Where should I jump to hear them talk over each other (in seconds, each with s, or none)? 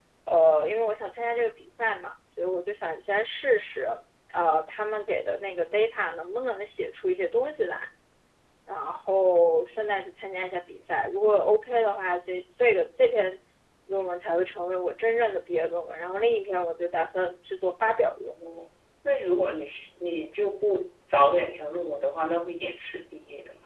none